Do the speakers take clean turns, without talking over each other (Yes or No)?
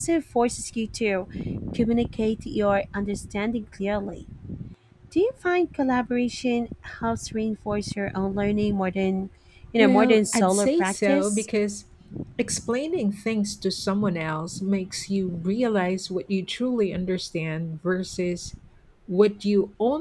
No